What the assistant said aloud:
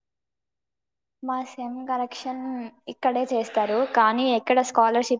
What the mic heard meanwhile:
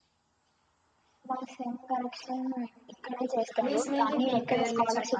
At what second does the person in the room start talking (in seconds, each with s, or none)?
3.6 s